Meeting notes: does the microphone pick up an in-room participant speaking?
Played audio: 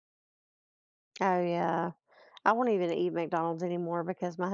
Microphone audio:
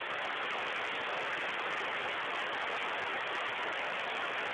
No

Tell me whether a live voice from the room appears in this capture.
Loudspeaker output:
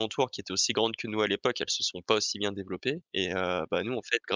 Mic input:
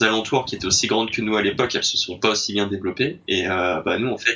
No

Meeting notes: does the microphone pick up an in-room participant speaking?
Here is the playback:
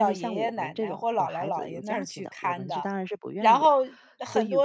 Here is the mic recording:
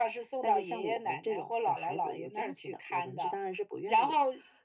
No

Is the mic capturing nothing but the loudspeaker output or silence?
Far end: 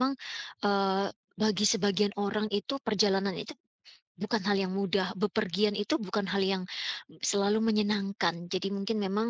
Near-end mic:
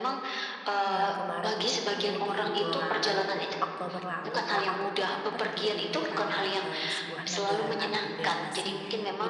No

